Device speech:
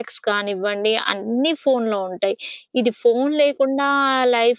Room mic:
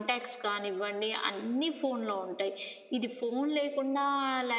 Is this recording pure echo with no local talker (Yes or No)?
Yes